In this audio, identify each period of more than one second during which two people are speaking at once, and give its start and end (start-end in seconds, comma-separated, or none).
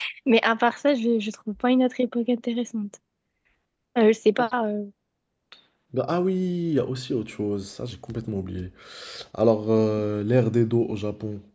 none